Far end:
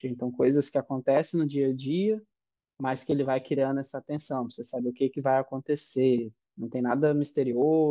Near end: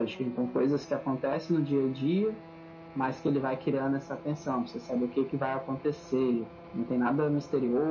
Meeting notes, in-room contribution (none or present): none